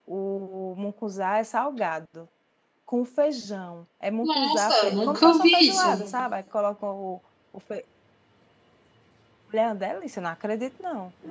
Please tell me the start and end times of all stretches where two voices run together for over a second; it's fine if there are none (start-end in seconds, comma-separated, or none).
4.2-6.0